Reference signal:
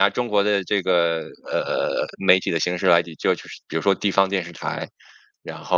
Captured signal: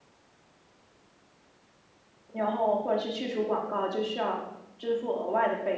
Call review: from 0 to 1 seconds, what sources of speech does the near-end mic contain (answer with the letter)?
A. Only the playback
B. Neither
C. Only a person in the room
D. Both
B